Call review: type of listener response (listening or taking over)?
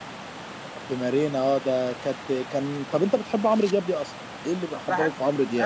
taking over